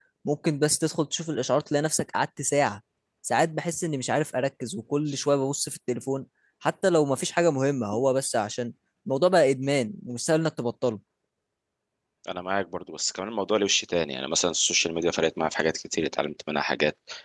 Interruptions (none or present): none